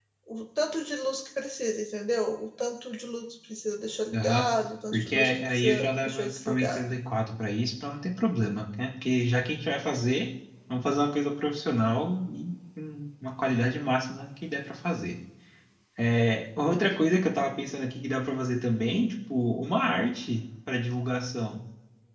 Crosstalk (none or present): present